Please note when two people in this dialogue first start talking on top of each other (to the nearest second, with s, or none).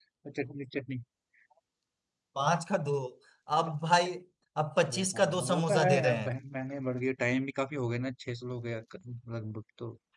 5 s